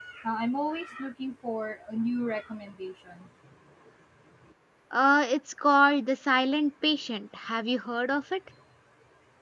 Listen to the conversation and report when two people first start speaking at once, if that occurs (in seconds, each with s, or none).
none